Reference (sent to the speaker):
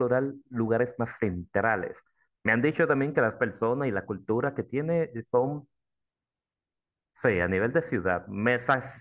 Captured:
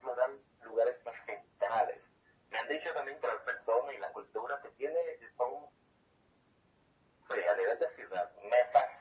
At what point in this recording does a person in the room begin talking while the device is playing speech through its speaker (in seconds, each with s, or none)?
none